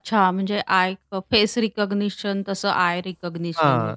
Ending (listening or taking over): taking over